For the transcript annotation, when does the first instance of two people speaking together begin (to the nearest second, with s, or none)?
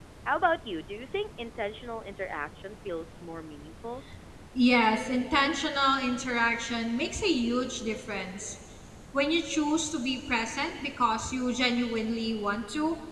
none